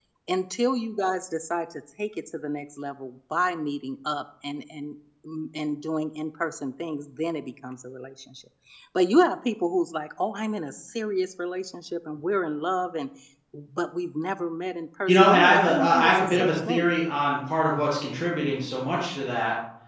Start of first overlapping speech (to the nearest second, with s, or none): 15 s